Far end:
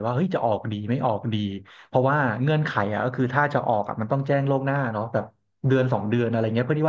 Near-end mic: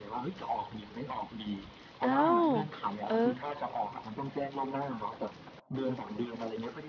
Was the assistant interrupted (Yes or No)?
Yes